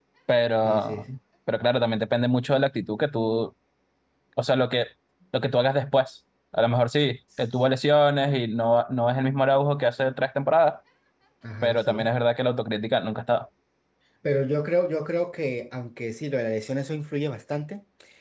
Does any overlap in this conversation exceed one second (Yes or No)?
No